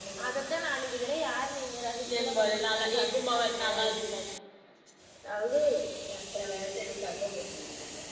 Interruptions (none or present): present